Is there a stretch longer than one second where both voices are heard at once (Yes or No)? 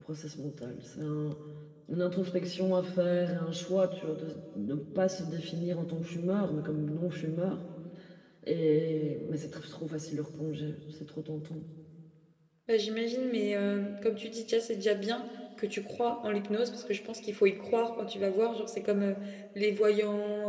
No